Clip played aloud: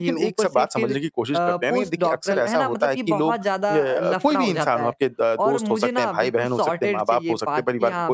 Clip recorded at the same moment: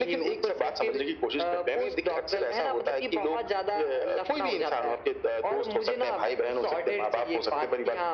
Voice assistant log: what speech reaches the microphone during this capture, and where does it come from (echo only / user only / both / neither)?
echo only